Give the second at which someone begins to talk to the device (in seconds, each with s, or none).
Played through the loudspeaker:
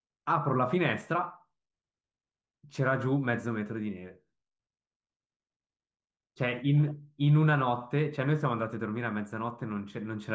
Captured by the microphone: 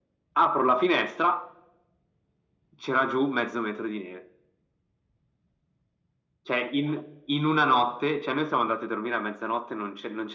none